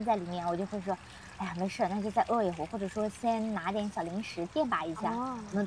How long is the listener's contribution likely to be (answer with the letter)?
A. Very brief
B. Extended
A